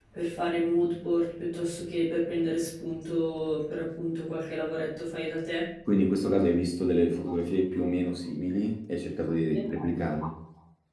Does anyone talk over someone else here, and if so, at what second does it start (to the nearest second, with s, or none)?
none